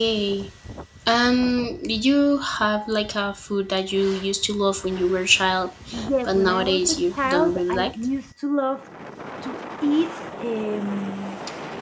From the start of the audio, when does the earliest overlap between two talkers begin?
6.2 s

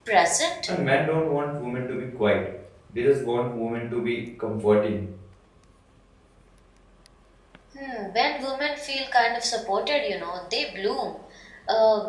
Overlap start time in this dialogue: none

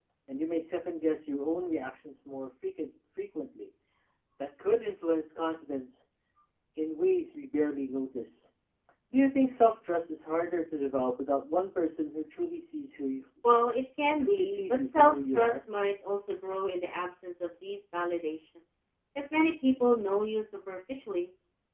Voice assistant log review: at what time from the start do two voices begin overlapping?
14.2 s

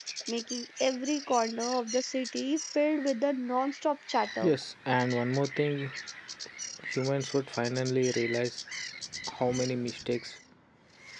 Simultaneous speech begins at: none

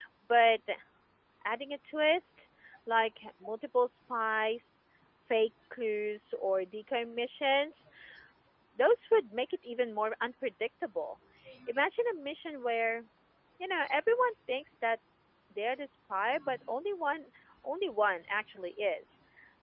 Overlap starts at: none

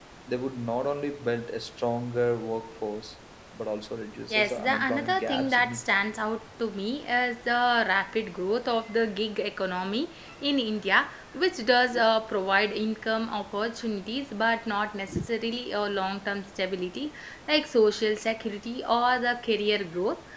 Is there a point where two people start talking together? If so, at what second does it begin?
4.3 s

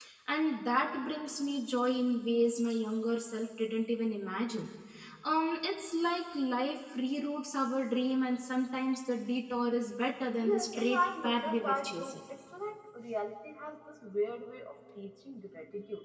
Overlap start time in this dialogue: 10.4 s

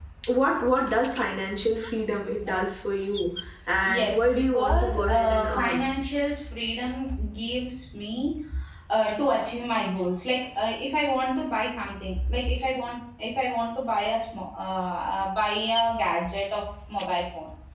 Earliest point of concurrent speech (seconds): 3.8 s

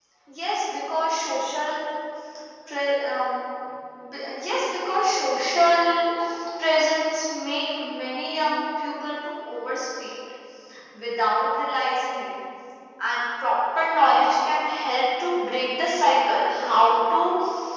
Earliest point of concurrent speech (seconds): none

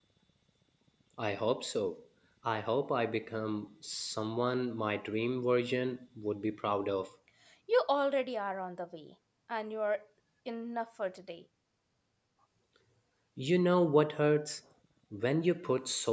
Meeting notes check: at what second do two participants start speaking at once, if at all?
none

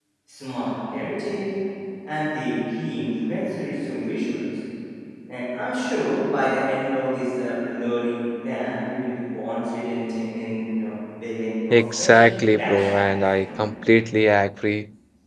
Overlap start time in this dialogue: 11.7 s

